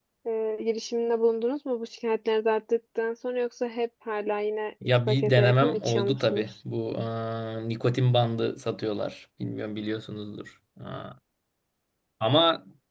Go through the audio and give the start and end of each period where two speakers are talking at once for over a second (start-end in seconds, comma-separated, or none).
4.8-6.5